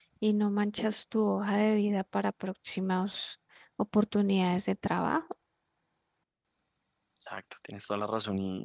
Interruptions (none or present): none